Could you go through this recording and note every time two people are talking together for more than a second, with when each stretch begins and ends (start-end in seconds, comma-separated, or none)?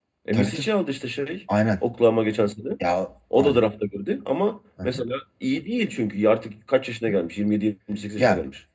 none